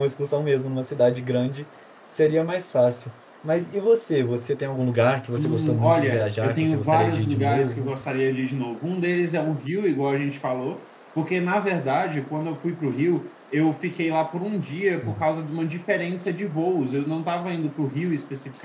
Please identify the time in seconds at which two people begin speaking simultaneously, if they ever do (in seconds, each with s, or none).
5.4 s